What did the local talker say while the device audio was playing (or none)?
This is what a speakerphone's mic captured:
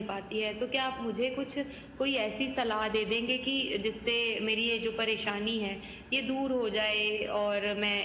none